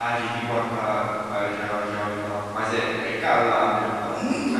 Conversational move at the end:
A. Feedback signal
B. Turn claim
B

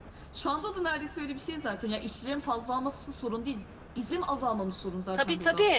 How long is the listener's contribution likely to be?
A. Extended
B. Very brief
A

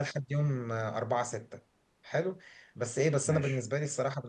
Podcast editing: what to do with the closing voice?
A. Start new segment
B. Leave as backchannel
B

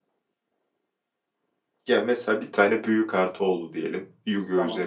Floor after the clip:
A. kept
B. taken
A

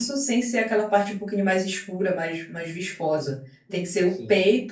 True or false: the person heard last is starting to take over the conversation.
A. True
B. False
B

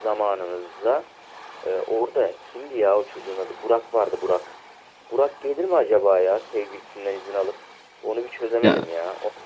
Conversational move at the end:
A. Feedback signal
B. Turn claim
A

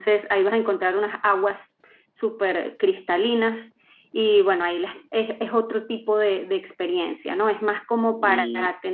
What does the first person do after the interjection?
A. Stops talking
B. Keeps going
B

